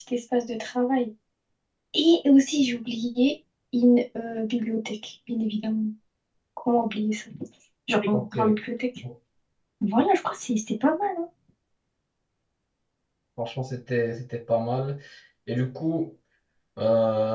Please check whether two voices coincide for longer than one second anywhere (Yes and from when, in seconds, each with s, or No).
No